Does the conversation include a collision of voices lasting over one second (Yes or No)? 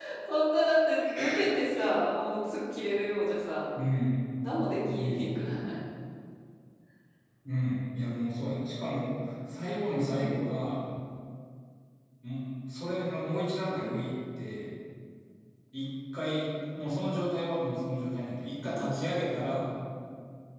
No